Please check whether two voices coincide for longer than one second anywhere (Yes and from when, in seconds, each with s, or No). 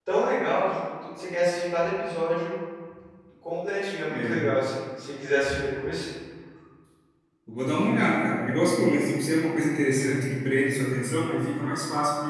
No